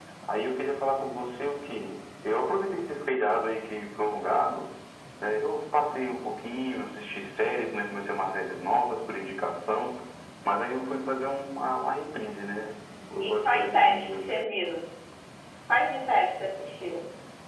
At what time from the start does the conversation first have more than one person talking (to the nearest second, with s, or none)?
13 s